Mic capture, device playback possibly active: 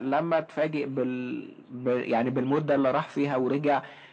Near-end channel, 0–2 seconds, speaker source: echo only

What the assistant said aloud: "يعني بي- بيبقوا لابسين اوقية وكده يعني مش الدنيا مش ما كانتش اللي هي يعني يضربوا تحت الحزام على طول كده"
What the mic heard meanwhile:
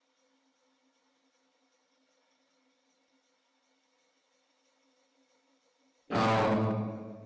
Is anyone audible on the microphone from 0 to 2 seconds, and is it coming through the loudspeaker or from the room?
neither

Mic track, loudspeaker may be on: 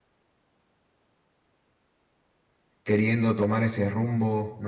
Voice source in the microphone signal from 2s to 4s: user only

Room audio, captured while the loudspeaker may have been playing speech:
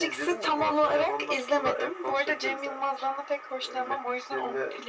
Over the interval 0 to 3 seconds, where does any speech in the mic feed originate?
echo only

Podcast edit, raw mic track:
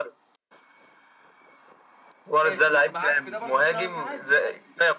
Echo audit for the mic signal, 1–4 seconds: both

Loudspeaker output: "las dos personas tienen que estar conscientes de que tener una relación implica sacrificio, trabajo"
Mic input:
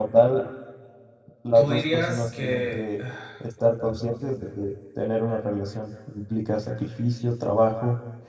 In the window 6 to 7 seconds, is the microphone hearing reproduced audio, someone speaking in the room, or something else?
echo only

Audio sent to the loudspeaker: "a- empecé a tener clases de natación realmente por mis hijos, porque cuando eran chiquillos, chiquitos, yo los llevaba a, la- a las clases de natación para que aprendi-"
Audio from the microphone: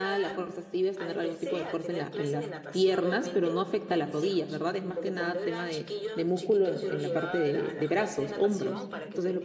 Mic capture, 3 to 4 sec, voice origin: both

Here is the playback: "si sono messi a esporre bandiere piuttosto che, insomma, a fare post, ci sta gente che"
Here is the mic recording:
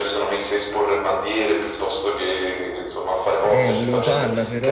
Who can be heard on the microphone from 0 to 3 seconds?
echo only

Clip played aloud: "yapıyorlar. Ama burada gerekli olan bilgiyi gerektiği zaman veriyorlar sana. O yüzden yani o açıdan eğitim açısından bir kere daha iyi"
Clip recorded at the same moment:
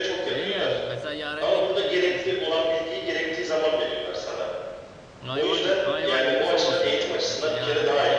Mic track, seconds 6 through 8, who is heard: both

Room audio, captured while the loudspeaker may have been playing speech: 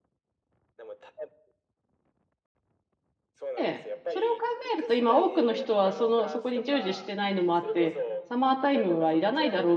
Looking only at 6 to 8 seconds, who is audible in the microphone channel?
both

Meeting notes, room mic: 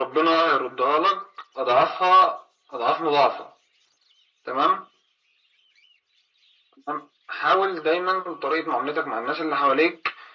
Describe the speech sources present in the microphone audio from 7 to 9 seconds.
echo only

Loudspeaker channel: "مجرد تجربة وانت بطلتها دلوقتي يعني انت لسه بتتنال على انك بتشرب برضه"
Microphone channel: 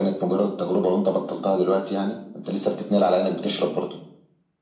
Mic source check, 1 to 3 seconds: echo only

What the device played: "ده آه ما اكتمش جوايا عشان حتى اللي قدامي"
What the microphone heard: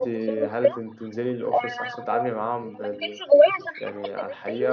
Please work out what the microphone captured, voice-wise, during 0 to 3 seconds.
both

